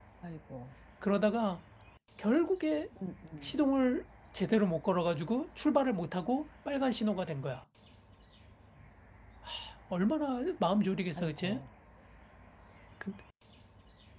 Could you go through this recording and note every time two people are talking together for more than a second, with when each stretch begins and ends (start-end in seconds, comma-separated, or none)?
none